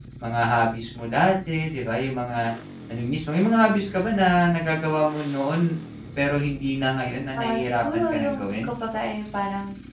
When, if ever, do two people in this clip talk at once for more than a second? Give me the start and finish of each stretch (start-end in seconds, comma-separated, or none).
7.4-8.7